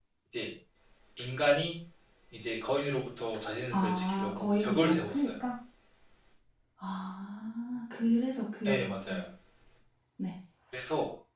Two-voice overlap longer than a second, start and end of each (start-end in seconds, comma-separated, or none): 3.7-5.3